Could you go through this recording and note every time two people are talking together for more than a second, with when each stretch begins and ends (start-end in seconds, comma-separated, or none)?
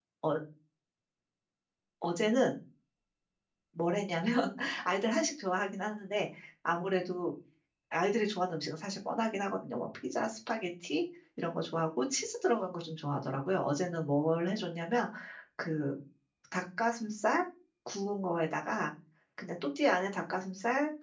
none